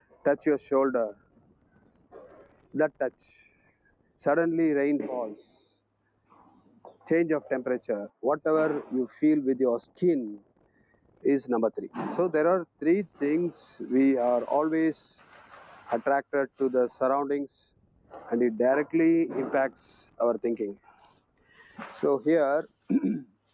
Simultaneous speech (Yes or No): No